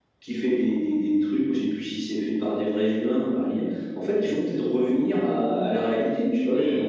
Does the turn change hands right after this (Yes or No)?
Yes